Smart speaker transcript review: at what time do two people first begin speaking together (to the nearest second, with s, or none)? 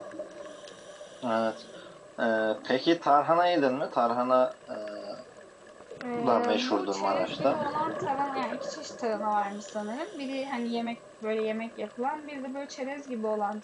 6 s